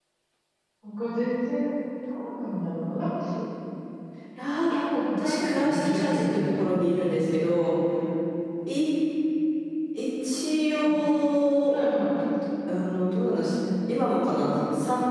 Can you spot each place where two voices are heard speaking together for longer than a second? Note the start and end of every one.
5.3-6.7

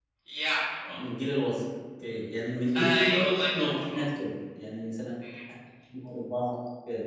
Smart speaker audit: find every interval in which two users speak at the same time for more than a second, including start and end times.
2.8-4.0

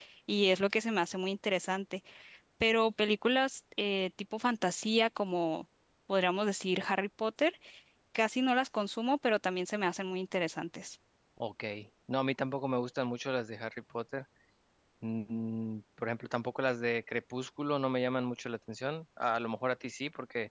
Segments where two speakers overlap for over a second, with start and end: none

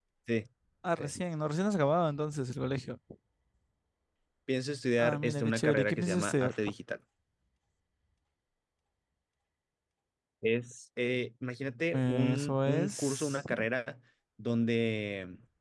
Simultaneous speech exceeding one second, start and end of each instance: 5.0-6.5, 11.9-13.4

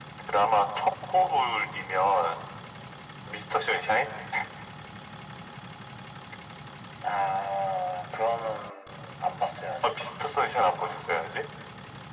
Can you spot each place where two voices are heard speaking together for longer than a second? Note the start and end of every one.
none

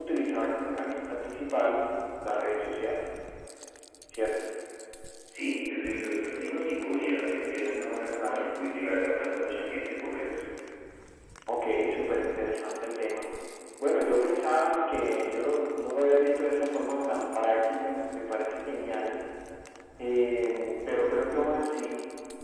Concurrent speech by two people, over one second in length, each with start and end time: none

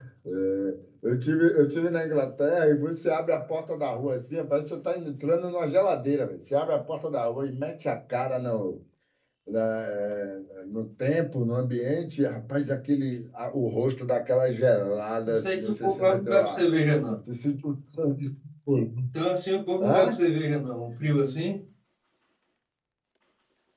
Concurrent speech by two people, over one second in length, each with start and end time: 15.3-16.6

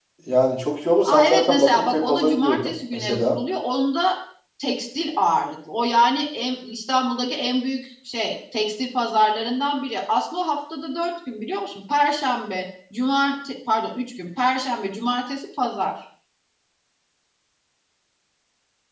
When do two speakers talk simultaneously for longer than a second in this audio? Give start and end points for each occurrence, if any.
1.1-3.4

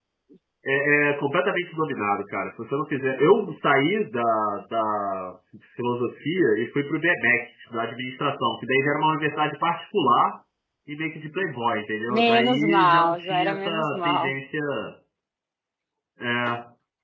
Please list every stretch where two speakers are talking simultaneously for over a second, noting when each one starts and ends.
12.1-14.3

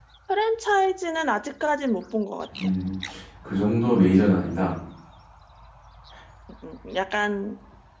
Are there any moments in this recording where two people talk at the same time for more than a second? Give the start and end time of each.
none

